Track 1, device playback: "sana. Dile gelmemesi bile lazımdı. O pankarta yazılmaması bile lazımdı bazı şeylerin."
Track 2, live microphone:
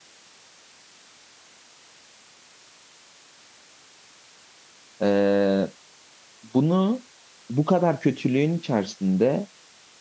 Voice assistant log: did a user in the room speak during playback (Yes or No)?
Yes